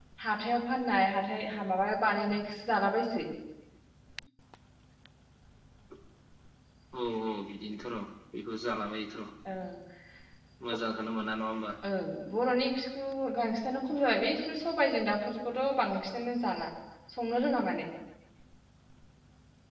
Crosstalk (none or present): none